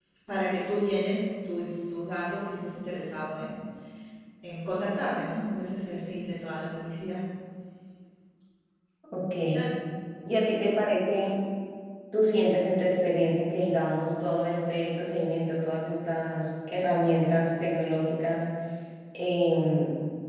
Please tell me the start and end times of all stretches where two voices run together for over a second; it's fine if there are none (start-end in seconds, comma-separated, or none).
none